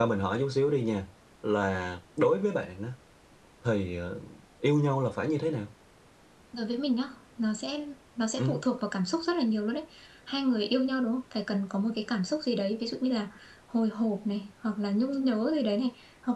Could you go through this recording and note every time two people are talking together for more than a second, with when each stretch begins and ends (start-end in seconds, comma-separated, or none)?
none